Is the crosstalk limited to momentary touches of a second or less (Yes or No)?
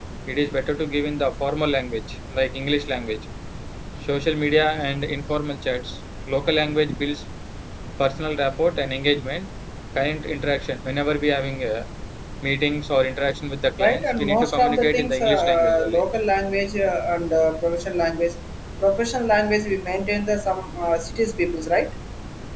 No